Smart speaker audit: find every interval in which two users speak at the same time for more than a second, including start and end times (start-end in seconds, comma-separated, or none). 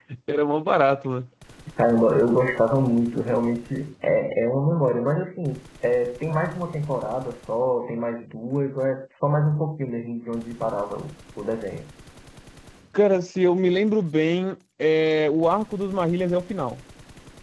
none